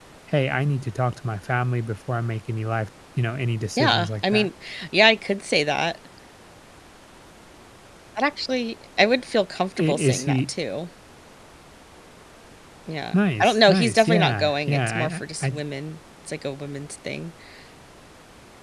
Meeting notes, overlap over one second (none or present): present